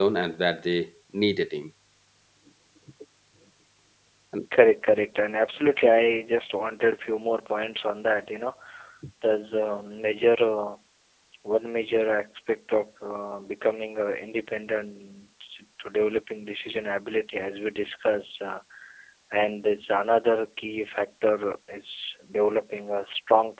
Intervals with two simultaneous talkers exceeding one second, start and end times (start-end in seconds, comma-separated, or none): none